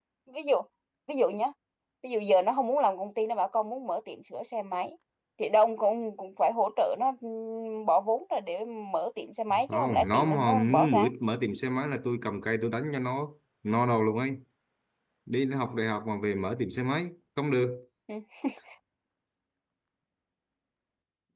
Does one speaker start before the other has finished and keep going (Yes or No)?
Yes